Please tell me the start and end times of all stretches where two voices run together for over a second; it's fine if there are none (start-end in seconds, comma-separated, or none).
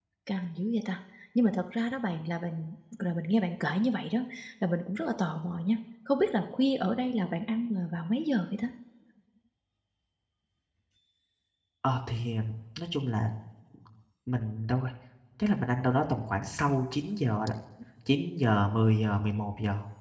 none